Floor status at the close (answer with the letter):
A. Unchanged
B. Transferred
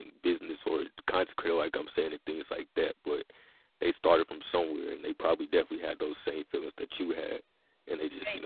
A